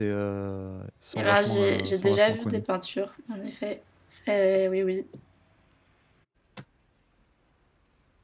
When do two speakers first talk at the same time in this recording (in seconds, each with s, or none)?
1.1 s